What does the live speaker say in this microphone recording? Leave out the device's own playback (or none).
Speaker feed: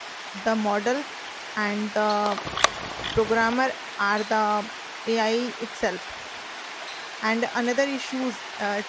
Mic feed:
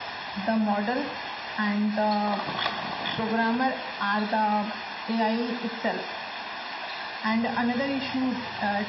none